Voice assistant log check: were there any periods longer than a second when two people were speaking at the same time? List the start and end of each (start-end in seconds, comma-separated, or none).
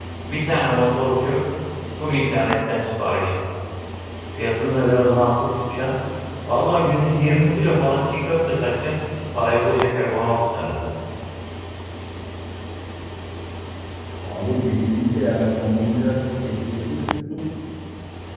none